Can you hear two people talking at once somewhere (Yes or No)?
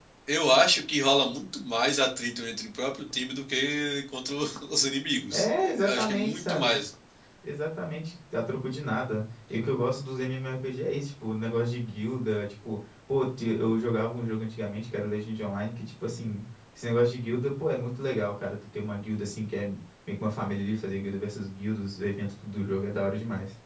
Yes